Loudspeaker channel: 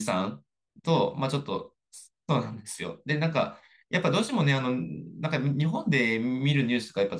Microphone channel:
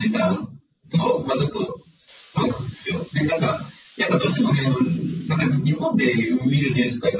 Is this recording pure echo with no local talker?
Yes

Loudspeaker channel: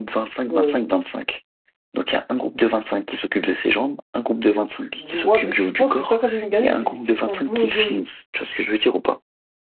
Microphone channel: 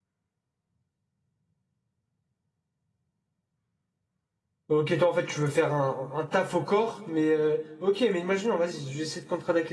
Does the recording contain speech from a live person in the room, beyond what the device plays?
Yes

